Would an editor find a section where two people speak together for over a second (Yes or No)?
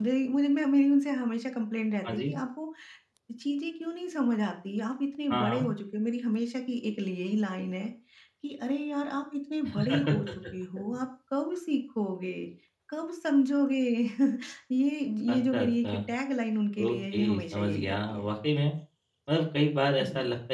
Yes